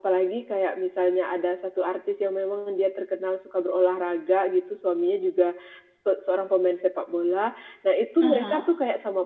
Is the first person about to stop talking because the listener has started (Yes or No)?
No